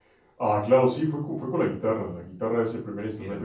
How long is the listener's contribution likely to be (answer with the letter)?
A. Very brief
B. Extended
A